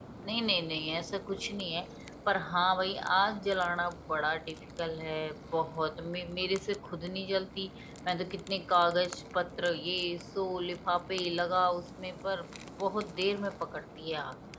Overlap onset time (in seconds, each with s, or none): none